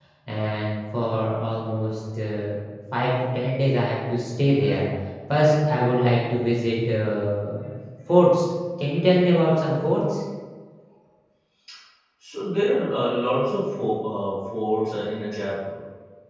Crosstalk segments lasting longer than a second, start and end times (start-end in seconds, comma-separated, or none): none